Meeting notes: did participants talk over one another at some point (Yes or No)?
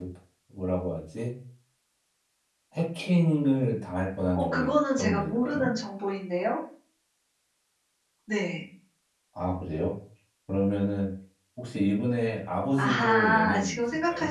Yes